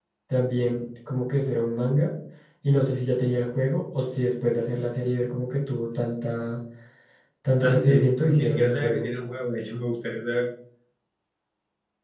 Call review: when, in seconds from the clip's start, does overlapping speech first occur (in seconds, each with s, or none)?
7.6 s